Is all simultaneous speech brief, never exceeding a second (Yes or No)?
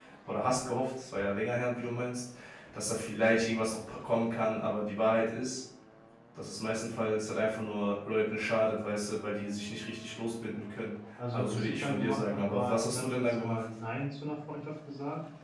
No